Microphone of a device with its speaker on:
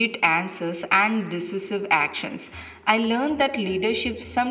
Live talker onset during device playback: none

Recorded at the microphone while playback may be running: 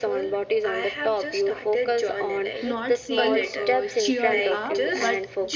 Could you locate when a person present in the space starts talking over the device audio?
3 s

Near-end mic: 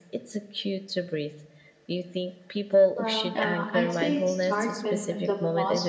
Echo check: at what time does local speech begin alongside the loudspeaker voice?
3 s

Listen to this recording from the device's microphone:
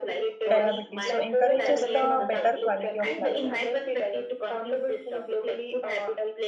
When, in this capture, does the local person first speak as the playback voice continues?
0 s

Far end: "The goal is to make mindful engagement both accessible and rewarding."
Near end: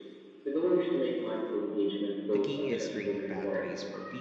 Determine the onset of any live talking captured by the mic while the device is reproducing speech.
2 s

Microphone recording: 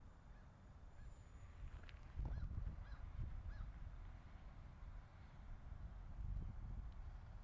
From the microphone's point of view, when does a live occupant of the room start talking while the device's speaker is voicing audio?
none

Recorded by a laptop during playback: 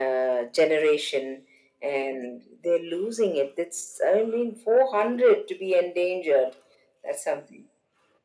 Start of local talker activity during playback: none

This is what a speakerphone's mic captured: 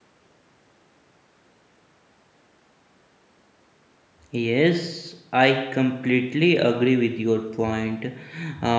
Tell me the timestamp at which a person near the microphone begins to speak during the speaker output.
4 s

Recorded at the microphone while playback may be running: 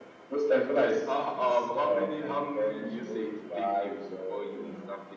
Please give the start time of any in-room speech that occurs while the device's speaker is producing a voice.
none

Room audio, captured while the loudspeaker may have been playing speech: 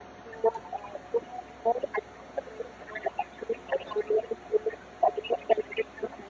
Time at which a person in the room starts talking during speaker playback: none

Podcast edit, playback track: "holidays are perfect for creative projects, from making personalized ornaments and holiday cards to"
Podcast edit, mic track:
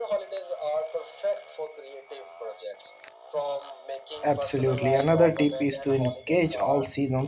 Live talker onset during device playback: 4 s

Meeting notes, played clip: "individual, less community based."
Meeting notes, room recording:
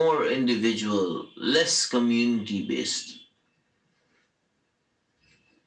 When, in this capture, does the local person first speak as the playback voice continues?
none

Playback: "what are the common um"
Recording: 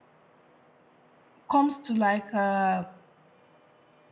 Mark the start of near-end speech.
1 s

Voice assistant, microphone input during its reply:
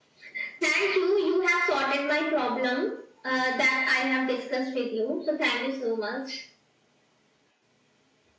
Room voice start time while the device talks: none

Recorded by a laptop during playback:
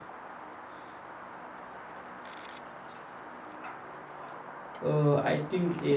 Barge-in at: 5 s

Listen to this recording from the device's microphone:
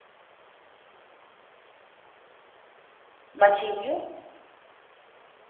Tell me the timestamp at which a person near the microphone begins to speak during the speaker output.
3 s

